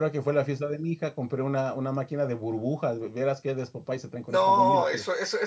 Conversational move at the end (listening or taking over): taking over